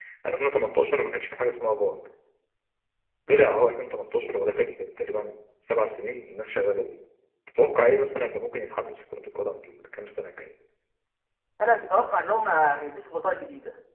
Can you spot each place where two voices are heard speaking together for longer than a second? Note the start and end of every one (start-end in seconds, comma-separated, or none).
none